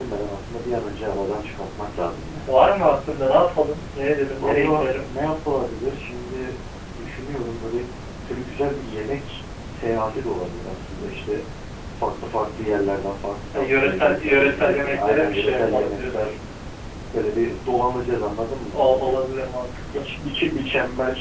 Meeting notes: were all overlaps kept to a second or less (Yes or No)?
No